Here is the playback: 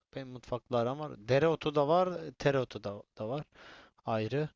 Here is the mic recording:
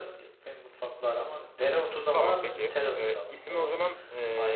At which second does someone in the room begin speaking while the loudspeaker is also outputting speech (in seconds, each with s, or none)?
2.1 s